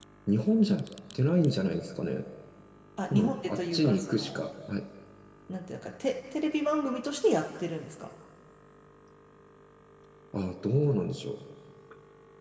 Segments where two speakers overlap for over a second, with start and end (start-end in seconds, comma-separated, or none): 3.1-4.4